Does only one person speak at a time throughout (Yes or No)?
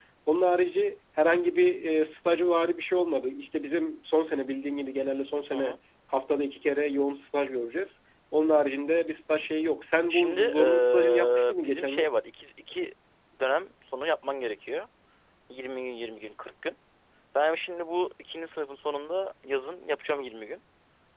No